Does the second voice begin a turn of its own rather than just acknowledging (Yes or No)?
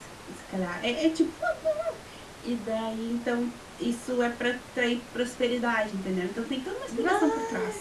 No